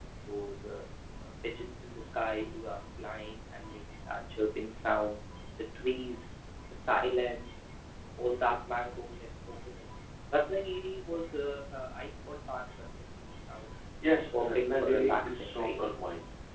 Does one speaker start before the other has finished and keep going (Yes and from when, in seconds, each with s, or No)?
Yes, from 14.4 s